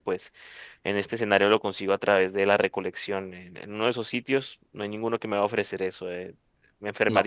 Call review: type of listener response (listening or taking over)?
listening